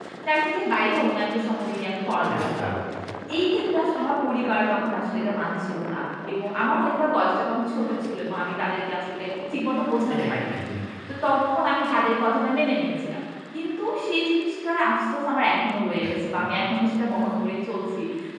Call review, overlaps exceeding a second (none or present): none